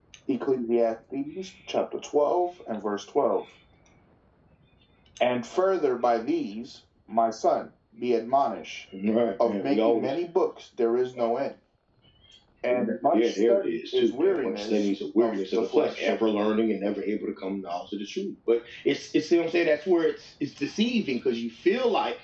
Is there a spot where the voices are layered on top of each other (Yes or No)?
Yes